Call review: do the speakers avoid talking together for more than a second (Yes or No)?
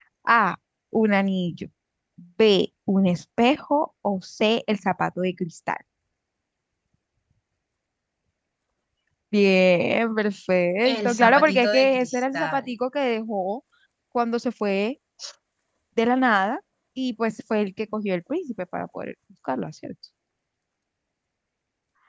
No